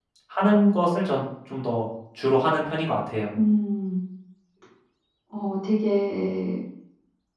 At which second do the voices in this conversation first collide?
none

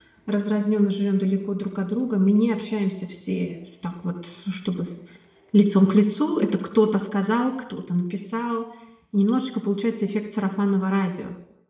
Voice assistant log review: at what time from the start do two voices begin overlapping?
none

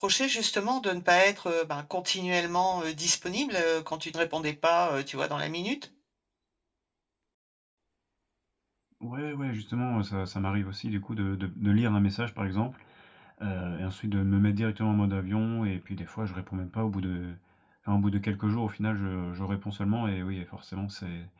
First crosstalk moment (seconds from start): none

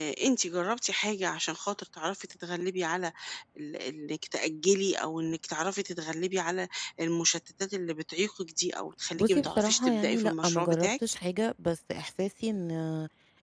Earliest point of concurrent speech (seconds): 9.2 s

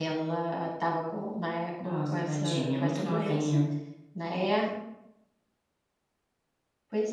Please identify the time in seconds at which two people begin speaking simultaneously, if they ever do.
1.8 s

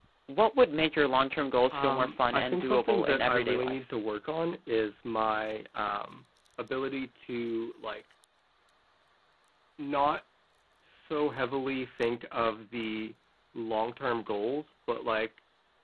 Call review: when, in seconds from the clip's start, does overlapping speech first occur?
1.7 s

